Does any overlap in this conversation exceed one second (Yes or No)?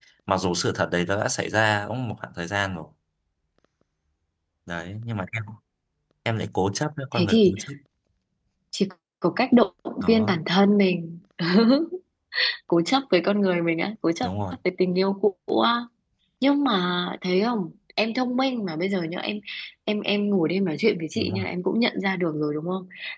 No